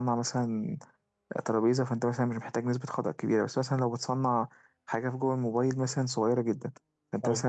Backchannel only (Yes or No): Yes